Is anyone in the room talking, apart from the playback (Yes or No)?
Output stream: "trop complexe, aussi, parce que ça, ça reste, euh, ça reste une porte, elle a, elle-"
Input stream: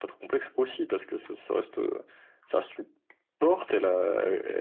No